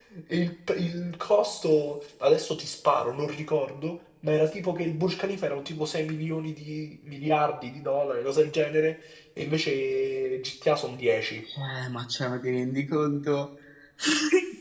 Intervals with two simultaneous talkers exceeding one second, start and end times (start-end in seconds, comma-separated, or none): none